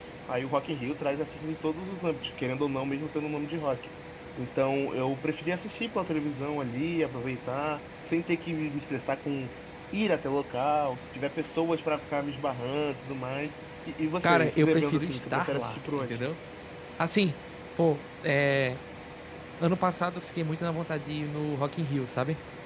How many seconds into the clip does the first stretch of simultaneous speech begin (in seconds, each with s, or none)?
14.2 s